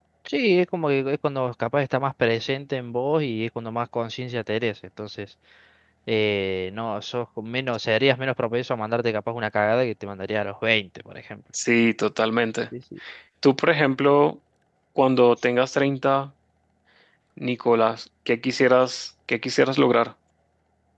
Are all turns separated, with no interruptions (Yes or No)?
Yes